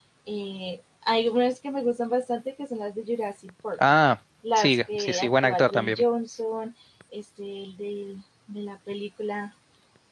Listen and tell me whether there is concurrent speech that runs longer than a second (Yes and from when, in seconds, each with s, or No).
Yes, from 4.6 s